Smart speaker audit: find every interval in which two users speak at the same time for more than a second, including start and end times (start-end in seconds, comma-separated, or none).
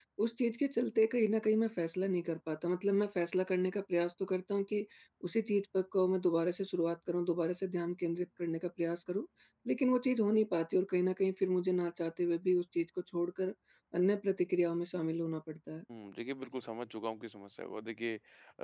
none